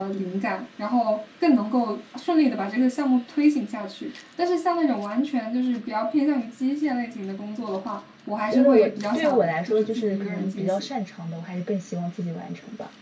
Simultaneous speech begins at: 8.5 s

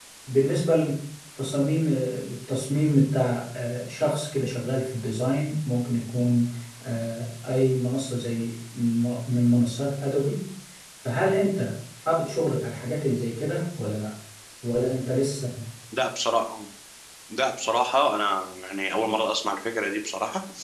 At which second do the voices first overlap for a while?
none

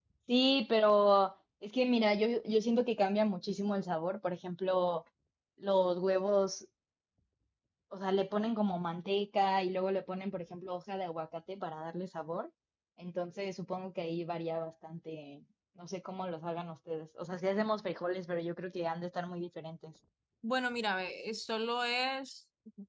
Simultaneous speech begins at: none

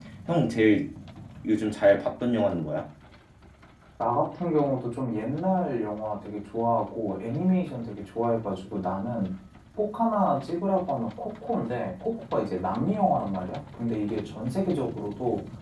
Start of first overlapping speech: none

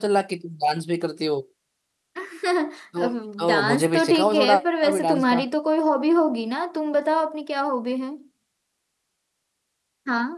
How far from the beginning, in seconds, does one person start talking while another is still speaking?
3.0 s

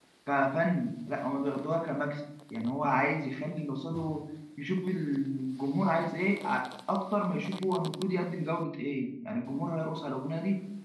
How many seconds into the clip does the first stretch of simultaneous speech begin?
none

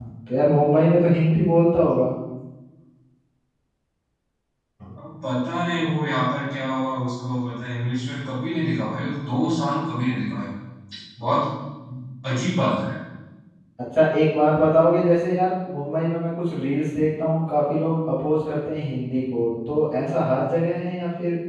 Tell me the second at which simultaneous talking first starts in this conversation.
none

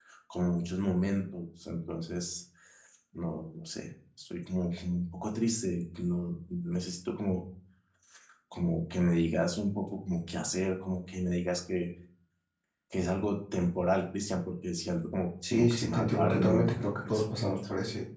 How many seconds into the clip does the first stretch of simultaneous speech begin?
15.4 s

